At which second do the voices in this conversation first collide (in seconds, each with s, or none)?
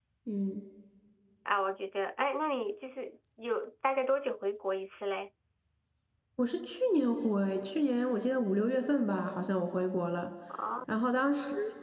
none